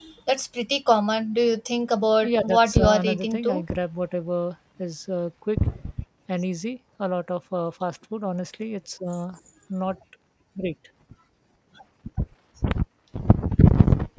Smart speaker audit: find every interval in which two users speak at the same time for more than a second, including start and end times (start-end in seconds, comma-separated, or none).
2.2-3.6